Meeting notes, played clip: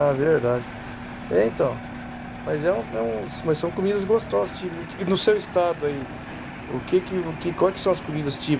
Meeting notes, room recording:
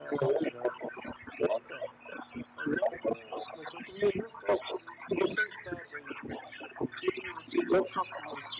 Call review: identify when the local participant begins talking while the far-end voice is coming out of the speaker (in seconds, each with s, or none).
none